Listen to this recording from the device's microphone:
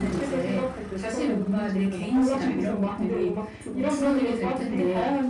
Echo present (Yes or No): Yes